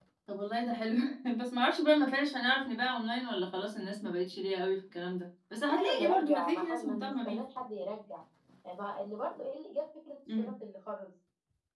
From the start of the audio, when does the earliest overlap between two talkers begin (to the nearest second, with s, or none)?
6 s